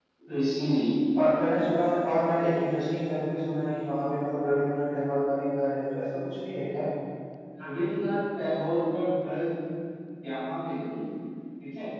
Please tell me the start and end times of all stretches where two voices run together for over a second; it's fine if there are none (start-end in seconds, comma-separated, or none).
none